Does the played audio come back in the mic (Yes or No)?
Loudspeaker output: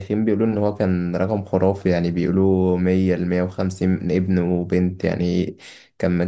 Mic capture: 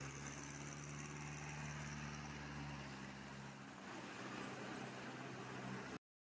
No